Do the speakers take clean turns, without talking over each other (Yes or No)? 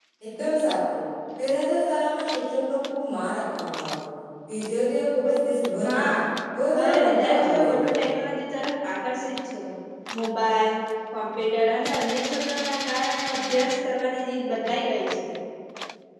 No